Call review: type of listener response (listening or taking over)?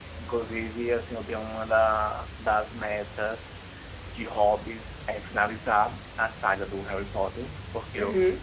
listening